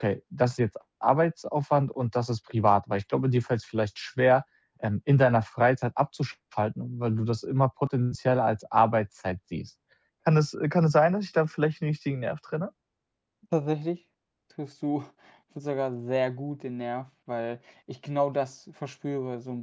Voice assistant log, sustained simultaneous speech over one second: none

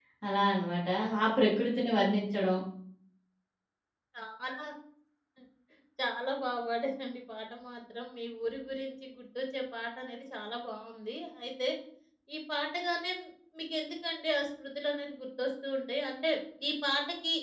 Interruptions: none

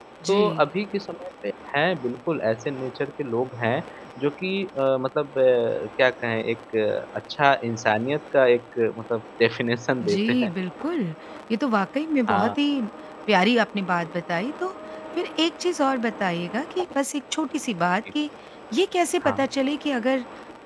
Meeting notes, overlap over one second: none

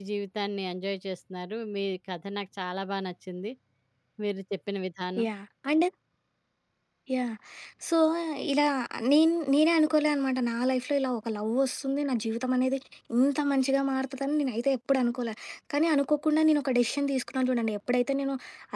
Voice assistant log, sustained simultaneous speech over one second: none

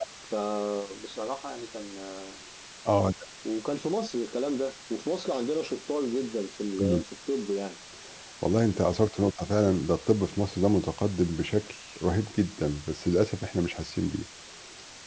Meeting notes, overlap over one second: none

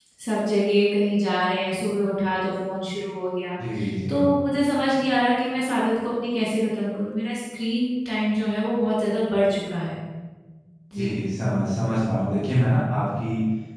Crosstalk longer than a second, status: none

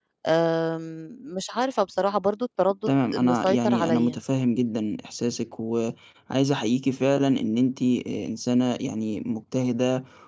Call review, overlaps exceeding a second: present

